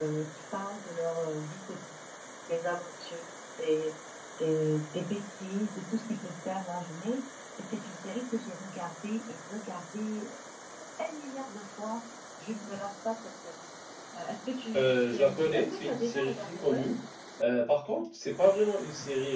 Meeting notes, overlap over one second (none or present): present